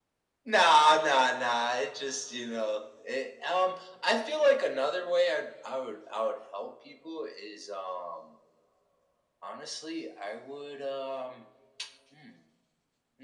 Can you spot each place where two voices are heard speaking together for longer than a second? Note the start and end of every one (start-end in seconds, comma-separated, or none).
none